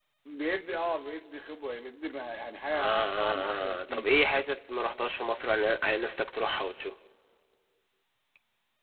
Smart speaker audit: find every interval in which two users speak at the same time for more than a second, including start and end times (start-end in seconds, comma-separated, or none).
2.7-4.1